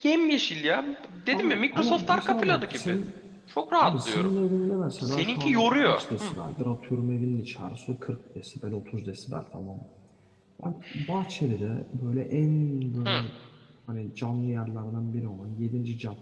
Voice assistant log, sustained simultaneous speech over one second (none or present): present